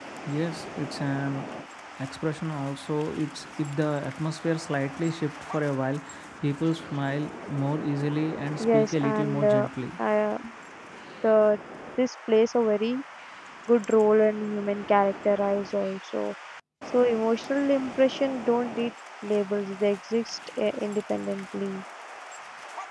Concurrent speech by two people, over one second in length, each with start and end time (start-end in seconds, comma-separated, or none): 8.6-9.9